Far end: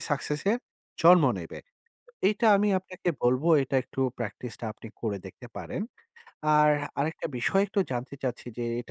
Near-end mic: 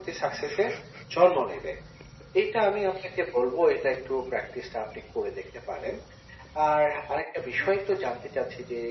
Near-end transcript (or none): none